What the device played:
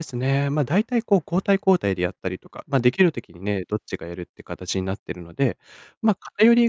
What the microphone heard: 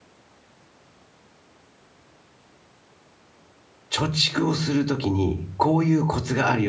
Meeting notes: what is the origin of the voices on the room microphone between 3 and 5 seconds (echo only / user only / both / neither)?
user only